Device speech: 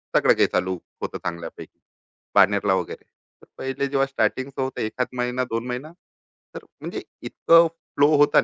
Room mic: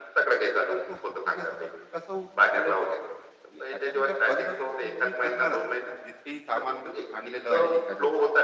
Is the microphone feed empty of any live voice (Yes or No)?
No